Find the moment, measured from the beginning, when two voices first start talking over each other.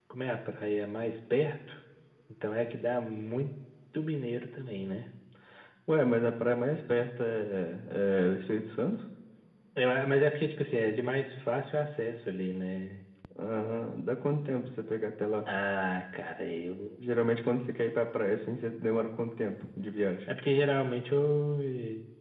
none

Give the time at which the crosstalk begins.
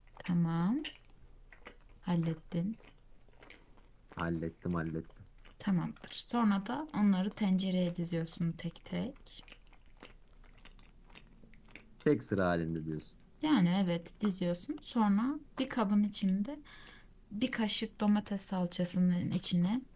none

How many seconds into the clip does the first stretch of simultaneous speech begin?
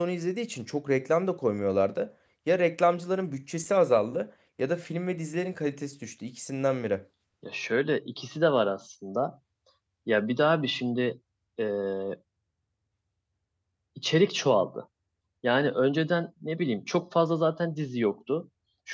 none

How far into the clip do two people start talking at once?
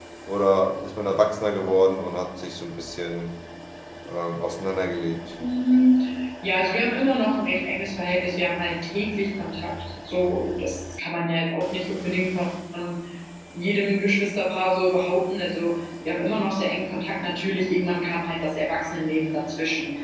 none

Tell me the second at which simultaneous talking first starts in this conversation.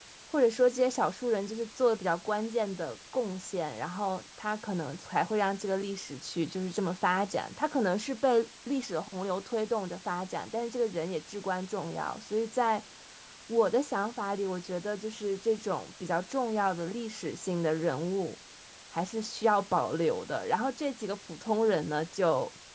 none

